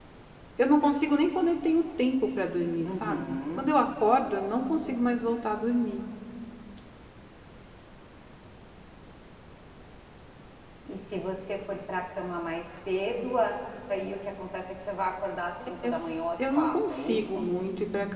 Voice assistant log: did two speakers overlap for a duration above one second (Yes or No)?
Yes